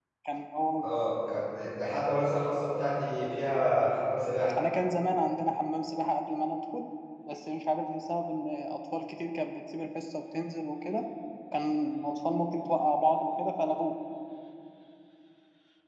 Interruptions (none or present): none